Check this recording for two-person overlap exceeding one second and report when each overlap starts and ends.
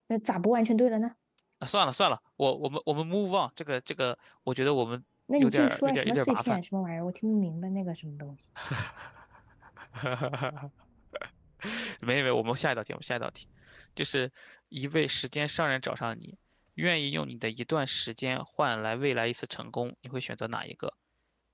5.4-6.6

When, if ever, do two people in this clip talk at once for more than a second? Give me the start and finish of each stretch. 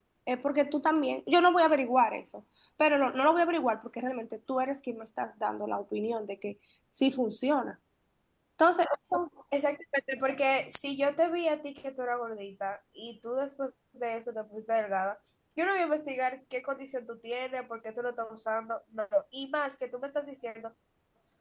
none

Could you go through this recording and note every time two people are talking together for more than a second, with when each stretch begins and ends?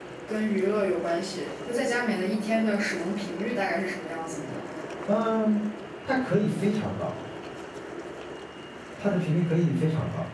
none

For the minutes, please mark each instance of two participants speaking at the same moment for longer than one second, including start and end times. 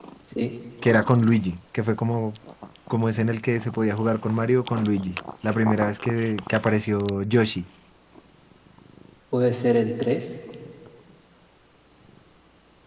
none

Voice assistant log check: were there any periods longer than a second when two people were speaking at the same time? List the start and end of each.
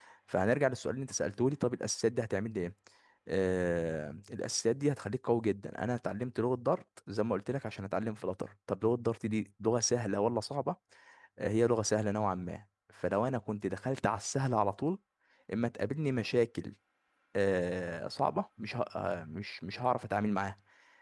none

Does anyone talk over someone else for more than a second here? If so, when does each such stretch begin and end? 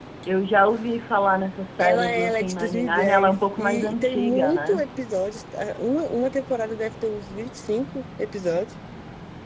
1.8-4.8

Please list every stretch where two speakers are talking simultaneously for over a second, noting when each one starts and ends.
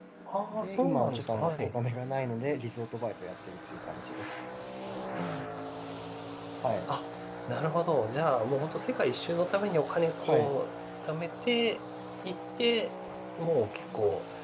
0.5-1.7

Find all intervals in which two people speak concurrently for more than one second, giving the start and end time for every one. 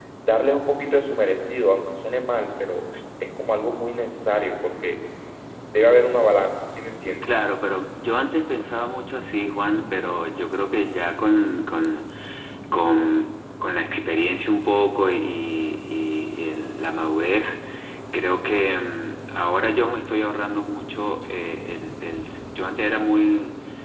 none

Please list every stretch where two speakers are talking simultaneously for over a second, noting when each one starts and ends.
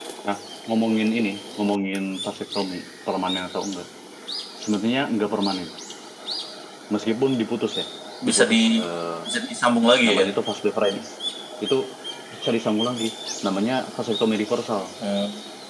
none

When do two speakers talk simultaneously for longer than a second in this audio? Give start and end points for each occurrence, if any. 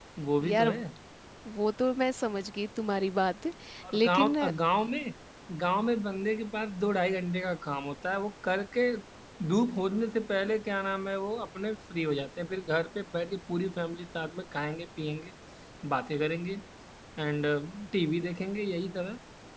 none

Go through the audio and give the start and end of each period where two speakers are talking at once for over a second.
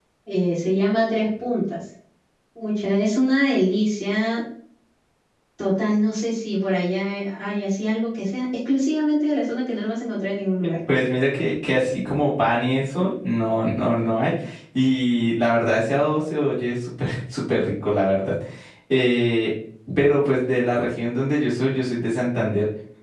none

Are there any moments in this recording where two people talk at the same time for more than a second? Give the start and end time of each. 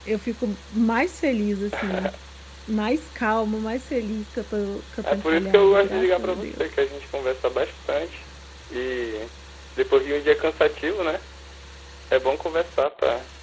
5.1-6.6

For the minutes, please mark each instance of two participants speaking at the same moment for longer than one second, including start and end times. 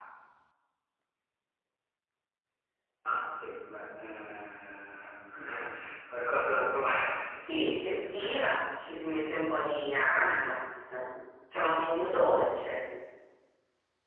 7.3-8.6

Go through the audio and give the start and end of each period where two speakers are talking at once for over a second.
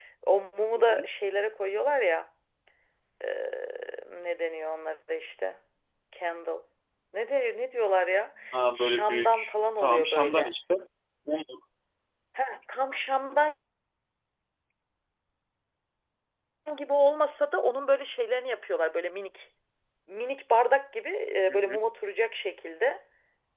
8.8-10.5

